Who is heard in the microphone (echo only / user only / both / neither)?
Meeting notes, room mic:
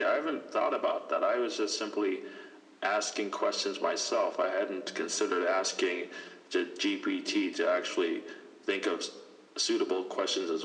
echo only